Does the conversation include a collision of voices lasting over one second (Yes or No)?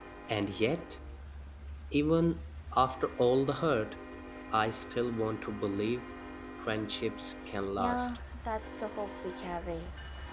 No